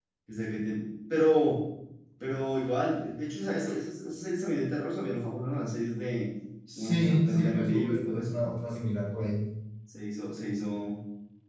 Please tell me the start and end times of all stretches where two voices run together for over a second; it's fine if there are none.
6.8-8.3

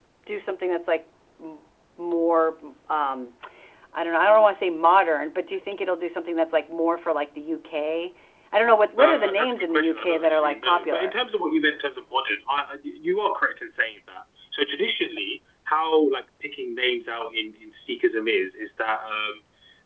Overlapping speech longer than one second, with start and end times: 9.0-11.2

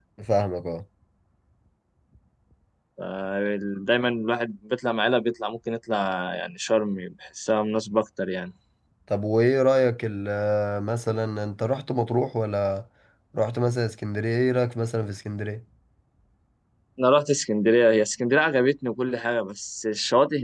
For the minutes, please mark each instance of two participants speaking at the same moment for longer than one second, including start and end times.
none

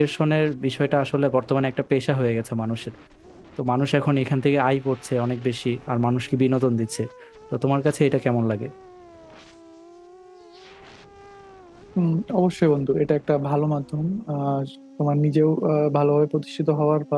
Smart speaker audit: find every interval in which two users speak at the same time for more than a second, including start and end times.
none

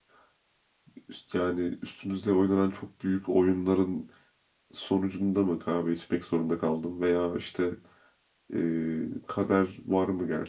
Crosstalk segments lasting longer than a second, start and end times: none

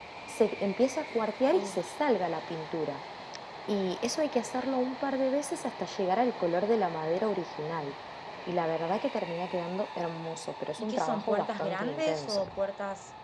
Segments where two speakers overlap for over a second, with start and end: 10.8-12.4

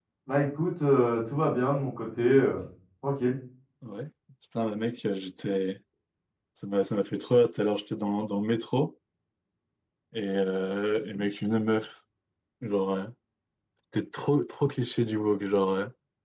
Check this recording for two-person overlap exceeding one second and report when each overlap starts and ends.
none

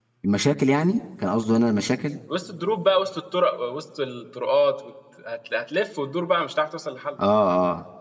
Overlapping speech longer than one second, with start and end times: none

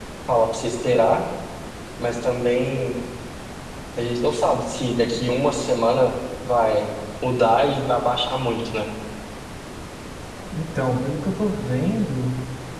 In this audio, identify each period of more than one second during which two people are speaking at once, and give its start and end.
none

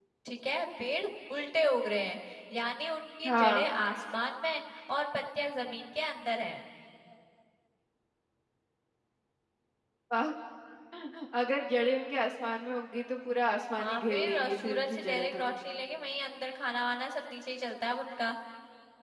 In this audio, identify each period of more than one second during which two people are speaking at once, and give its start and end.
13.8-15.4

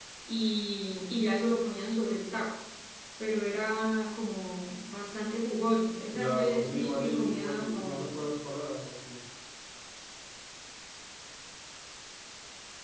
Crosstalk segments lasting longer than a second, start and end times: 6.1-8.3

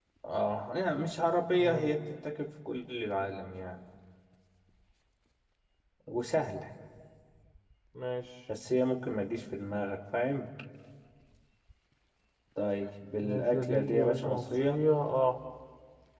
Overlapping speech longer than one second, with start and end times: 13.2-14.8

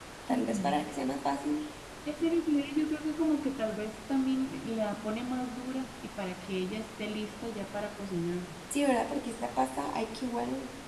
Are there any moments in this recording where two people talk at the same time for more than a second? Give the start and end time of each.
none

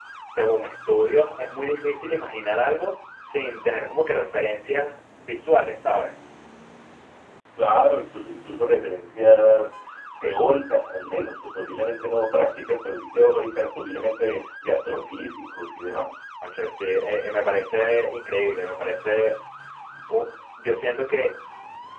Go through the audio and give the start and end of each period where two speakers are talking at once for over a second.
none

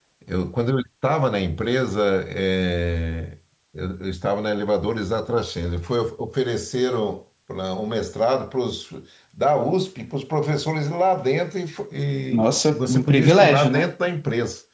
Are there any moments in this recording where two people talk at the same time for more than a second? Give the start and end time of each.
12.3-13.9

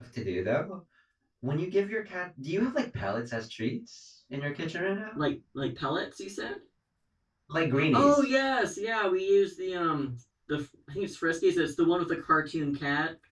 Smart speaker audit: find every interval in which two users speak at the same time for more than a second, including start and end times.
none

